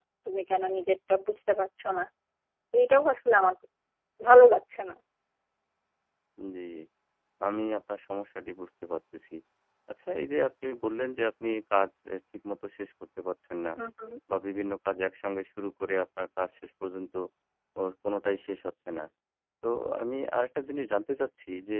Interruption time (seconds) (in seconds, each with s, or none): none